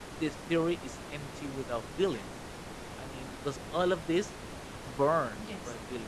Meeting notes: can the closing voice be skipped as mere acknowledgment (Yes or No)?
Yes